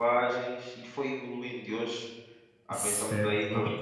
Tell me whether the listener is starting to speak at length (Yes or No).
Yes